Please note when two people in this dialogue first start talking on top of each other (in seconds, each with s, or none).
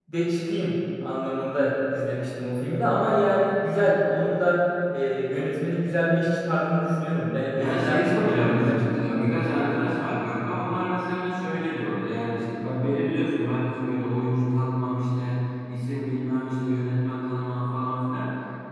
7.6 s